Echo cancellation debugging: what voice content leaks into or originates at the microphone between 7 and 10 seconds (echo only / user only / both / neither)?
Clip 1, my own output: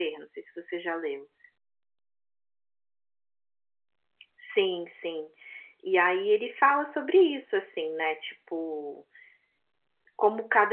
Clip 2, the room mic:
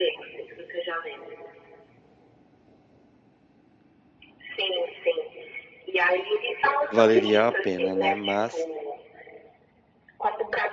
both